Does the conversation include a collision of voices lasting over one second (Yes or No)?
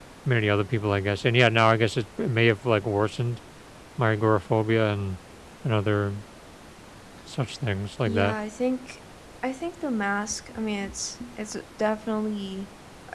No